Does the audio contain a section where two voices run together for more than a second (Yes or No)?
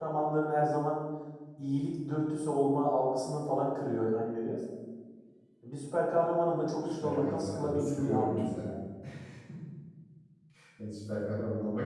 Yes